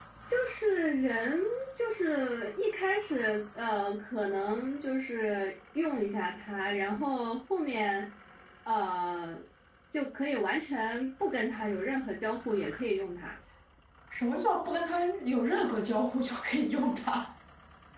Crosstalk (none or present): none